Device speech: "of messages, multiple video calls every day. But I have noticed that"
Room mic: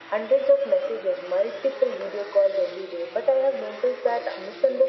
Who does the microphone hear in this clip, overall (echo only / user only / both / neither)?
echo only